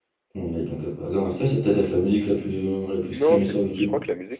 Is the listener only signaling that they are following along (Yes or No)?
No